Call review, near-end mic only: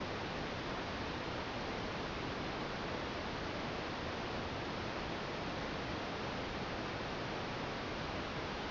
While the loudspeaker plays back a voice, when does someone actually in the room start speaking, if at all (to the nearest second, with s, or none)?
none